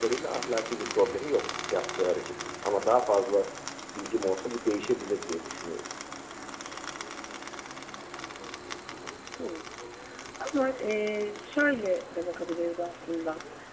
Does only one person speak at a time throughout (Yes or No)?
Yes